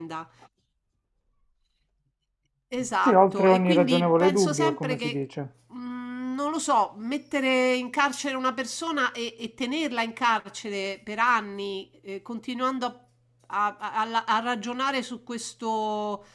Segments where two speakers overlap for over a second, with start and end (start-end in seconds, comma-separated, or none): 3.0-5.2